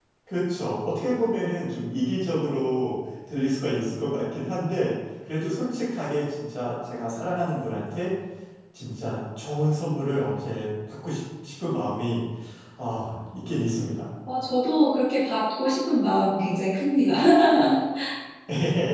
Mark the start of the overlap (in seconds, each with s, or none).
none